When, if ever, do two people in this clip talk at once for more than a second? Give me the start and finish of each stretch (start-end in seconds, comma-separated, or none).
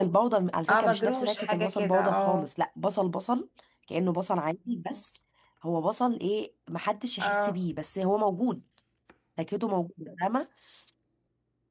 0.7-2.5